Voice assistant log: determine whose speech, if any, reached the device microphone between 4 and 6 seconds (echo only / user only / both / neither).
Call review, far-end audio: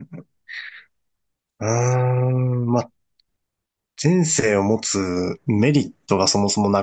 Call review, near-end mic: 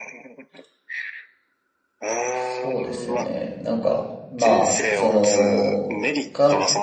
both